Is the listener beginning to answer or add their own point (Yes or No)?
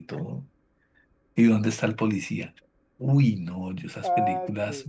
No